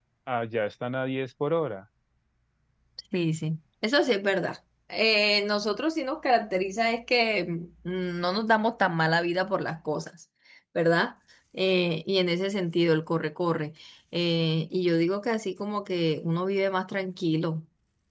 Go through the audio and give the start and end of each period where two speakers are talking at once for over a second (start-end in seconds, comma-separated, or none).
none